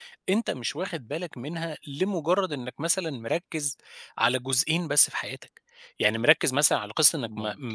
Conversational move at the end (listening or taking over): listening